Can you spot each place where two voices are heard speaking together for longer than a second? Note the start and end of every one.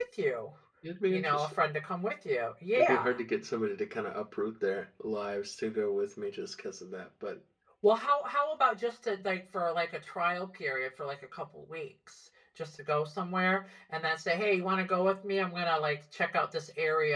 none

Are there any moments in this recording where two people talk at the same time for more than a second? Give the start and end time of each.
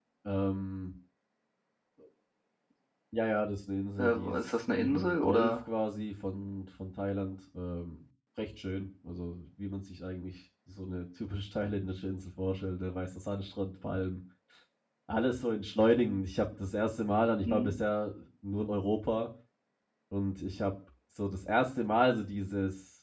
4.0-5.5

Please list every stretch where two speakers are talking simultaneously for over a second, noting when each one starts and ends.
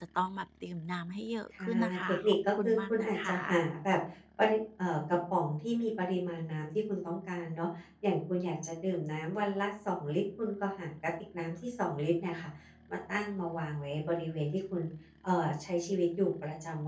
1.6-3.4

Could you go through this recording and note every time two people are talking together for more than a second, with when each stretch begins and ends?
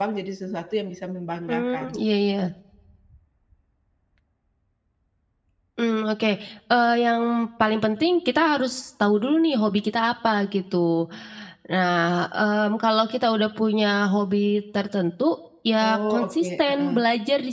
15.8-17.0

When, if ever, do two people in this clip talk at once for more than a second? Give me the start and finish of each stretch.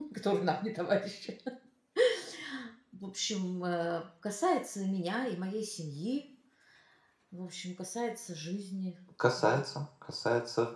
none

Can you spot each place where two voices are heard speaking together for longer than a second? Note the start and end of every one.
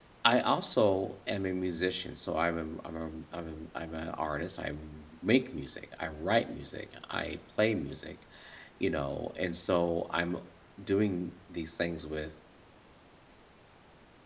none

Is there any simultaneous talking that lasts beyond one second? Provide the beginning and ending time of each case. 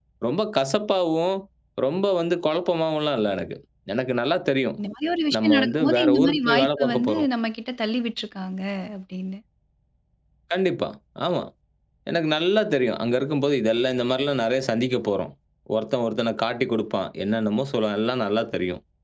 5.4-7.3

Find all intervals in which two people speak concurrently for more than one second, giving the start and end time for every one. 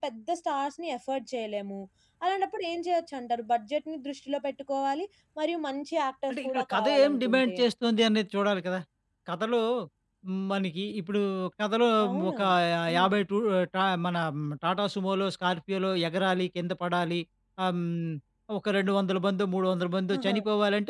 6.3-7.5

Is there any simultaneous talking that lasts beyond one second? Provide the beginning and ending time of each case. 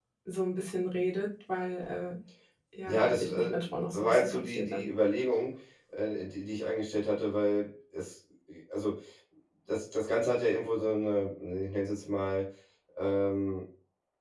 2.9-4.8

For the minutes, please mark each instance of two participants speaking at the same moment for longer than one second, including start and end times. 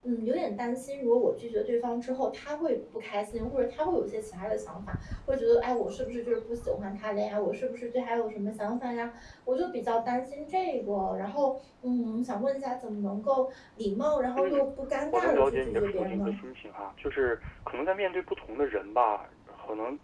15.1-16.3

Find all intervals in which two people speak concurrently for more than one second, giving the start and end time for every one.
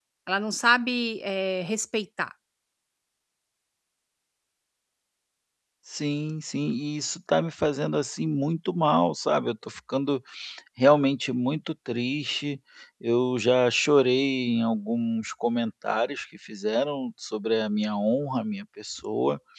none

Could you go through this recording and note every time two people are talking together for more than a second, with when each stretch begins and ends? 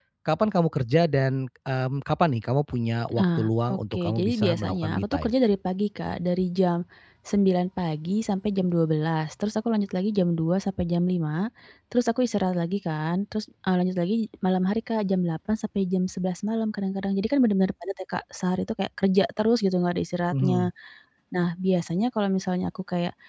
3.2-5.3

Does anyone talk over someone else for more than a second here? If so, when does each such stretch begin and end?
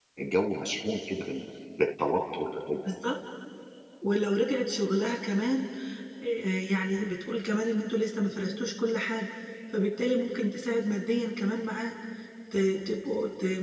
none

